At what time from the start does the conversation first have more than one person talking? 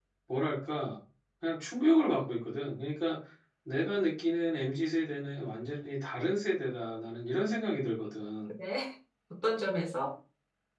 none

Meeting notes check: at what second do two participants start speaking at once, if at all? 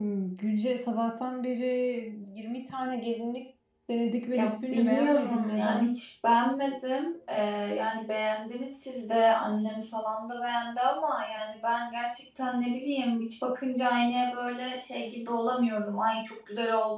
4.3 s

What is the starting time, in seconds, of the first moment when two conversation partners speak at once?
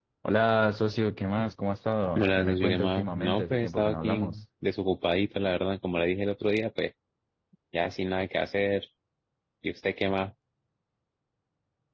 2.2 s

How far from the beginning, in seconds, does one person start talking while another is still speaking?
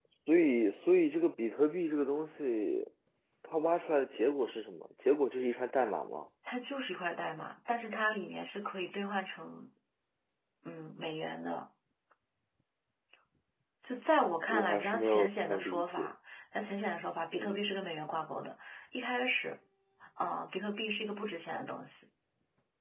14.5 s

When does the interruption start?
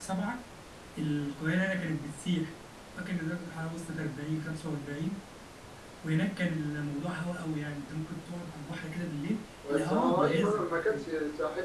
9.6 s

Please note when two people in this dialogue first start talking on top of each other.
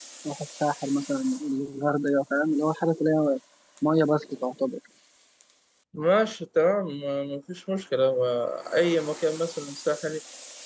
none

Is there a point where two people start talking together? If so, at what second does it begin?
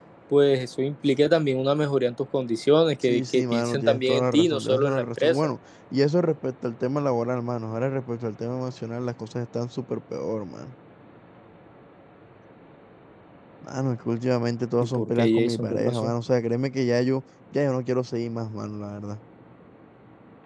3.0 s

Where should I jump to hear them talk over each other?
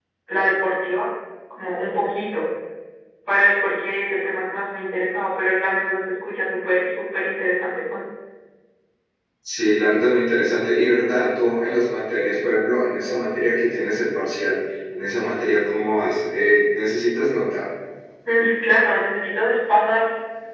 none

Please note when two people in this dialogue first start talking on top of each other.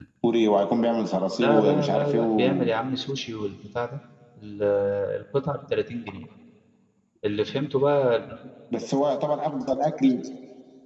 1.4 s

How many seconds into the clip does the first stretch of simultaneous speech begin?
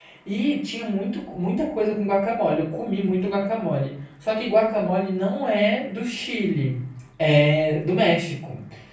none

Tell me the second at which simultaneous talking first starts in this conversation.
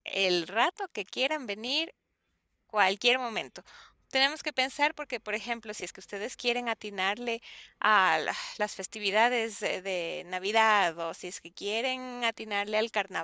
none

